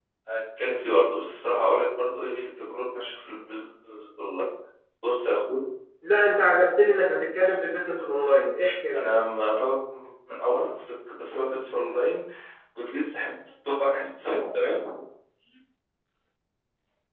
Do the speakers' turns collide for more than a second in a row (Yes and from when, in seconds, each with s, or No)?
No